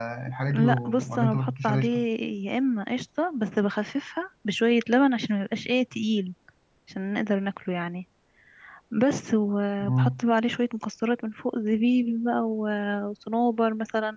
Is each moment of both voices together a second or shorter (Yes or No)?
No